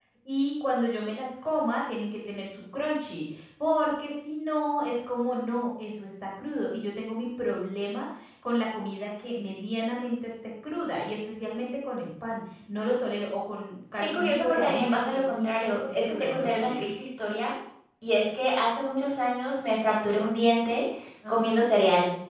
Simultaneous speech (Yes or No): Yes